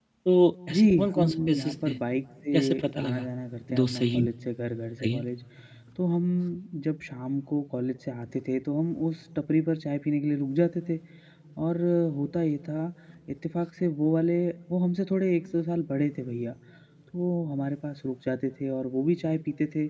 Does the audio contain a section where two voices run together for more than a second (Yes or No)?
Yes